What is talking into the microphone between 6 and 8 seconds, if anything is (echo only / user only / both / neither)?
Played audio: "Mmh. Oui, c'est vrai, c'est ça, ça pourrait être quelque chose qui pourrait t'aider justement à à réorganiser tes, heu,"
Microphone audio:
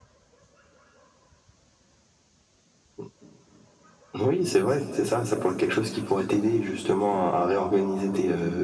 echo only